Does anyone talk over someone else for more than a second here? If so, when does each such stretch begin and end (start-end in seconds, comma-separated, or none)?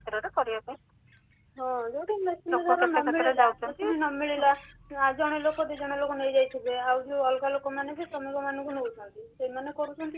2.5-3.9